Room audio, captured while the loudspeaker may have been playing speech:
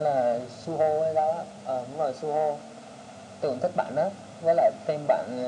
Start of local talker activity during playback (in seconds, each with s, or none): none